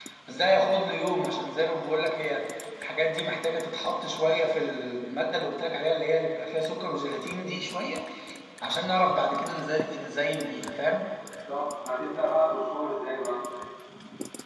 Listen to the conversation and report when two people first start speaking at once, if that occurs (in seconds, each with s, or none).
none